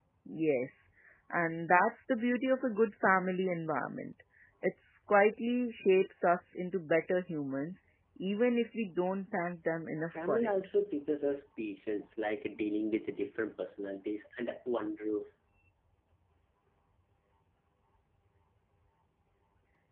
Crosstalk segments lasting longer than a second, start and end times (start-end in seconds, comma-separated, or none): none